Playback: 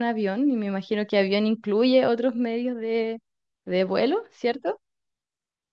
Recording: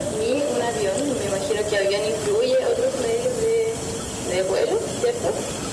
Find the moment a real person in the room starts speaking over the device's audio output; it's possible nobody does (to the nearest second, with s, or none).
none